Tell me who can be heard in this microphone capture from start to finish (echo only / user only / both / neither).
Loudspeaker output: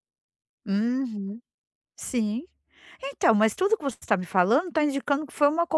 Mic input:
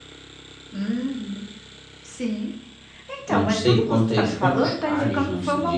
both